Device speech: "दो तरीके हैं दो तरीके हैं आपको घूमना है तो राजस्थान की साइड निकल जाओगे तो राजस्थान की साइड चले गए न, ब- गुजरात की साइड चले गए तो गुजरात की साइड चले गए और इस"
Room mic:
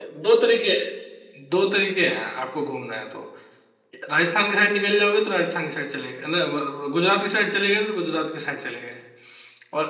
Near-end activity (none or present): none